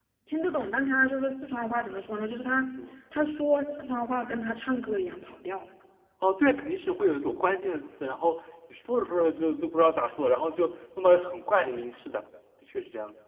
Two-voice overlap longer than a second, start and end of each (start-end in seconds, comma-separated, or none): none